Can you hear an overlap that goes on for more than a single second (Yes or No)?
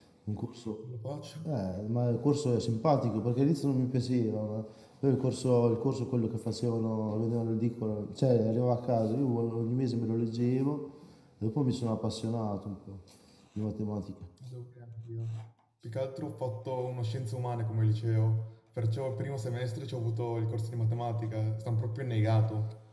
No